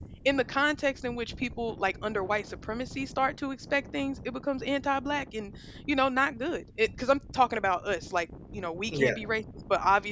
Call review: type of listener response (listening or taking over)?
listening